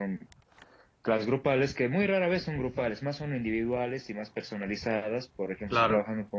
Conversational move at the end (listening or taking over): listening